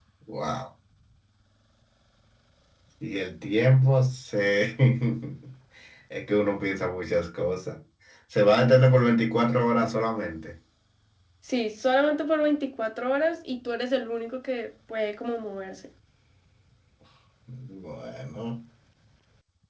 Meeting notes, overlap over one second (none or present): none